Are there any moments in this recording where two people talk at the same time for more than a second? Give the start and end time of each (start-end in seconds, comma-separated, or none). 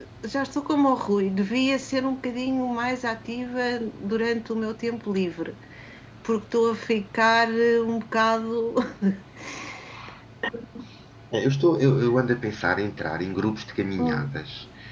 none